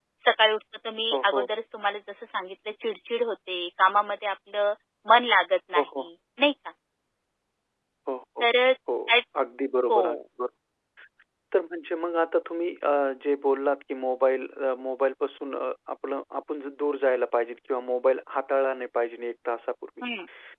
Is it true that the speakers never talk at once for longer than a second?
Yes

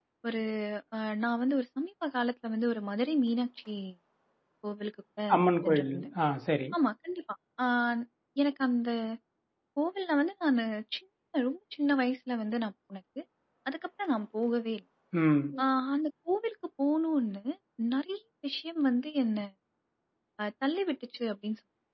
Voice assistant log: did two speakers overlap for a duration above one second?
No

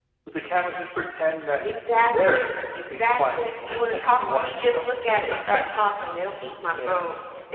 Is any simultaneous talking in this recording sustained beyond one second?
Yes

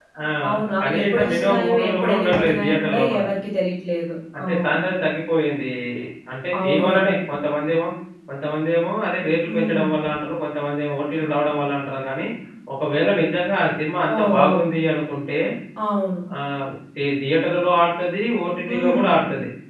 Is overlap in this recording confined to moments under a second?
No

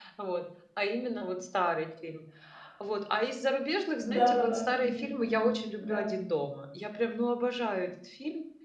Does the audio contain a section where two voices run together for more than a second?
Yes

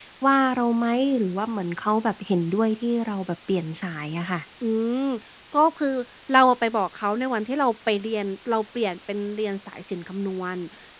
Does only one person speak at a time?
Yes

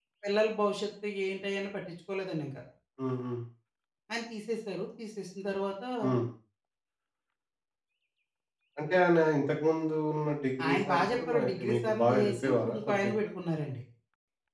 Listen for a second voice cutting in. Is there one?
Yes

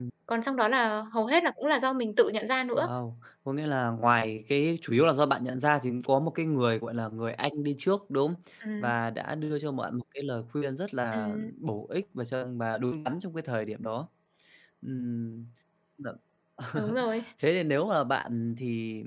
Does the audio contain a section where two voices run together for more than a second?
No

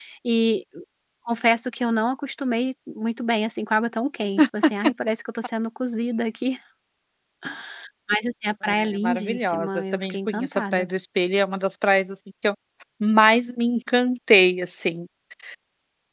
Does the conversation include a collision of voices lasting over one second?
Yes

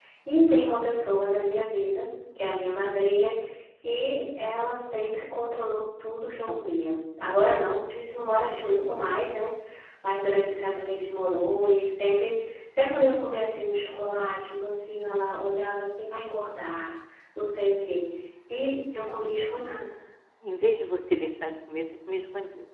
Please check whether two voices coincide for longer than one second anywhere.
No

